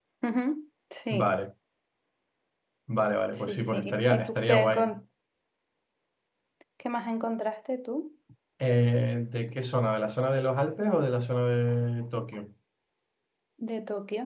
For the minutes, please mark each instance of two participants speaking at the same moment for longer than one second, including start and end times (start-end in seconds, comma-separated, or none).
3.3-4.9